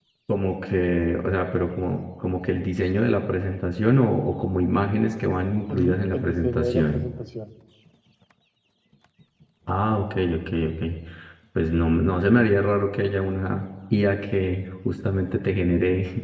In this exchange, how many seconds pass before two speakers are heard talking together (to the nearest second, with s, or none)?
6 s